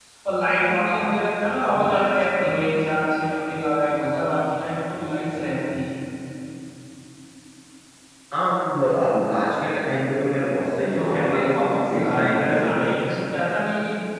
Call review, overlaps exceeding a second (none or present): present